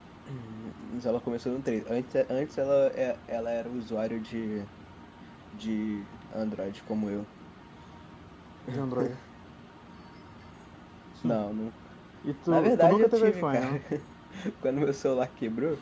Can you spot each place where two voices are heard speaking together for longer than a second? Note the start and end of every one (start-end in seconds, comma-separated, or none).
12.5-13.8